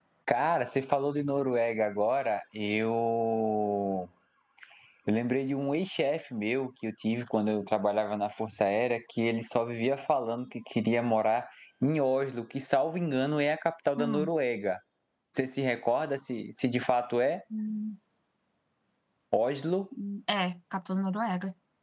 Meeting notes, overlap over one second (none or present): none